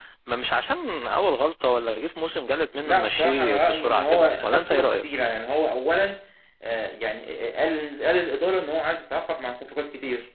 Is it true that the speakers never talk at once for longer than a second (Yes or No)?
No